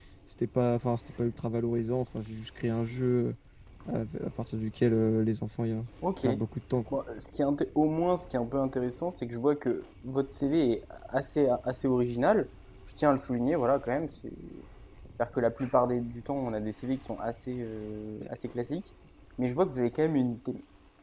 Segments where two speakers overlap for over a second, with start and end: none

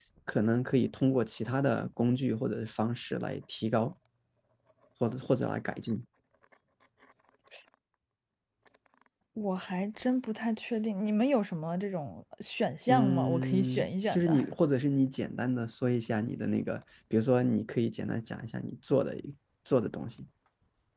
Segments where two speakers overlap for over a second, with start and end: 12.9-14.5

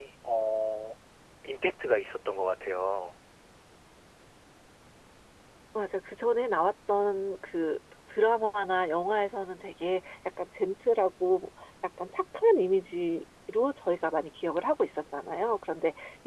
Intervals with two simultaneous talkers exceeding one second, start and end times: none

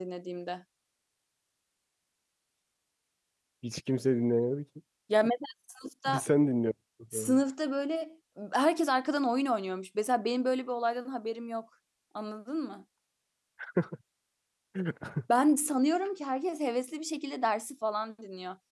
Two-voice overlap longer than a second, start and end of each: none

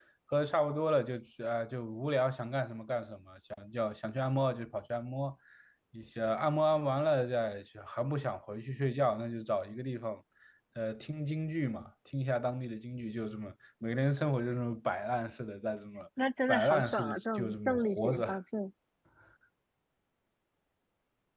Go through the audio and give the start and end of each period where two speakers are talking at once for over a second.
16.5-18.4

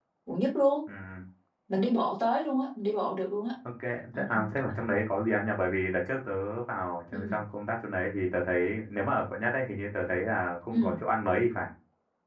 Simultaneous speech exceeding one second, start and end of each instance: none

